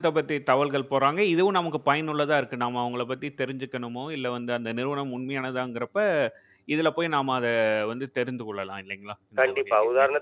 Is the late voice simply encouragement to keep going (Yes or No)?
No